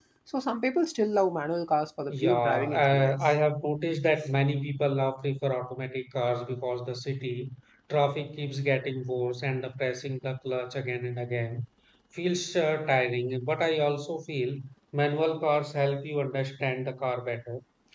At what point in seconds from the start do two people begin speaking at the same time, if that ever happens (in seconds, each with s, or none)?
2.1 s